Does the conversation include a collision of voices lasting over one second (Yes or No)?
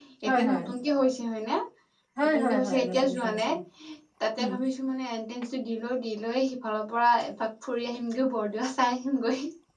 Yes